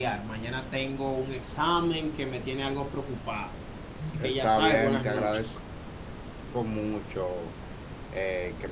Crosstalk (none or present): present